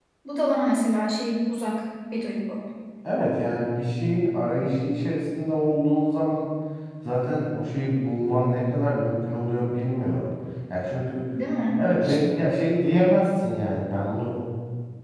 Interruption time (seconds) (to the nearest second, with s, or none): none